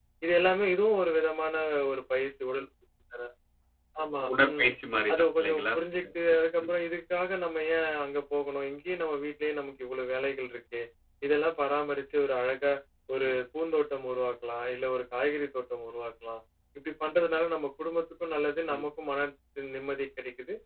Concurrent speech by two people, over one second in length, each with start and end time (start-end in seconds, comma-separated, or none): 5.1-6.8